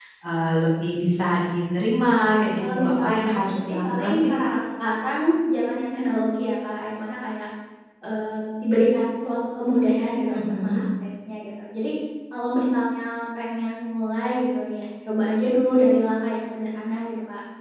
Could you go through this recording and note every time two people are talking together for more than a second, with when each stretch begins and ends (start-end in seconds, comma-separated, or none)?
2.3-4.5